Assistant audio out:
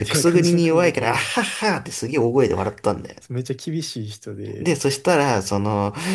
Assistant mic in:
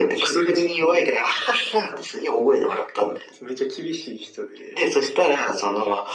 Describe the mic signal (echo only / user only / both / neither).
echo only